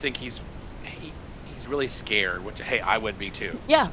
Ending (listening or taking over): taking over